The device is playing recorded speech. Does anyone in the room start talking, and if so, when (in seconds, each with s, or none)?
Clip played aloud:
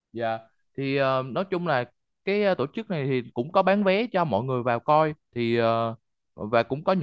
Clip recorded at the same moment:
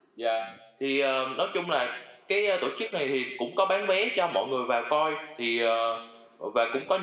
none